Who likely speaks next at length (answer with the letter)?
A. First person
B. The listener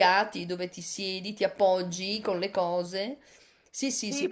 B